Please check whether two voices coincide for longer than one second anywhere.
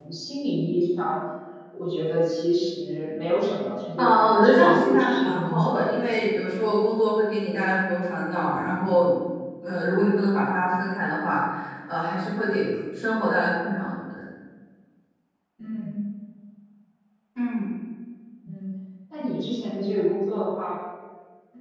Yes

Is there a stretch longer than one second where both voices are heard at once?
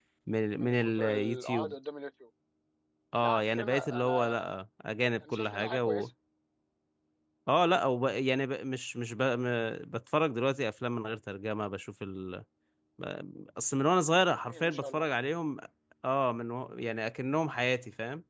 Yes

